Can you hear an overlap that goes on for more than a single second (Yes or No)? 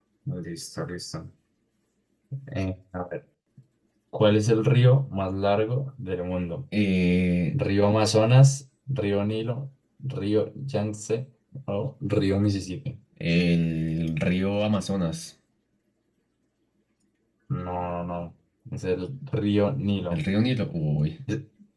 No